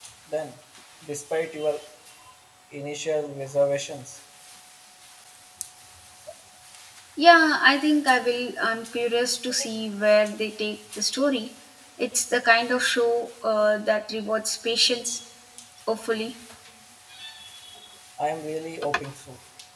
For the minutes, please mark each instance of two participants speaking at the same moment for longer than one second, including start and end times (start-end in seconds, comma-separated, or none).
none